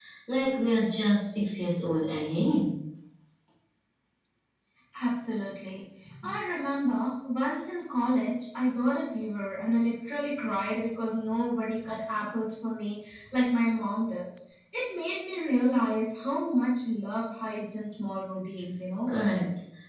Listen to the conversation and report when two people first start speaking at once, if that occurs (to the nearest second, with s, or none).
none